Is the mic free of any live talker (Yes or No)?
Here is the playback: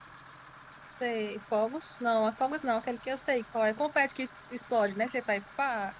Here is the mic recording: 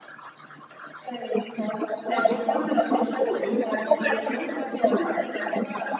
No